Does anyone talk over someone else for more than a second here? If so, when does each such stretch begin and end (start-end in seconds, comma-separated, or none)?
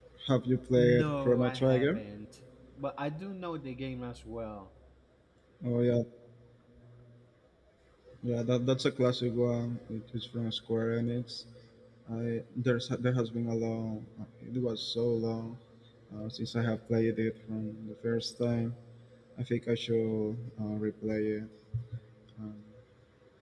0.8-2.0